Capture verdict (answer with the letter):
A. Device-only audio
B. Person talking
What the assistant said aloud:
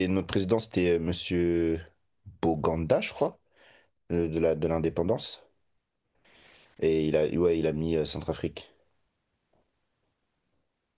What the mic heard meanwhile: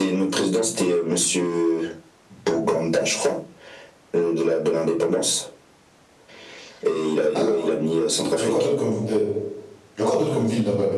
B